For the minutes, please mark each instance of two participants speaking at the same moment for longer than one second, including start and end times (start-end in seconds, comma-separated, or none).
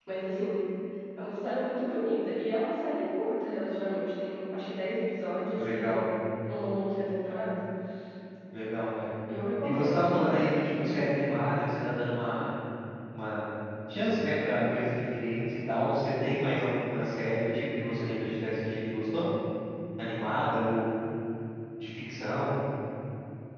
9.6-11.0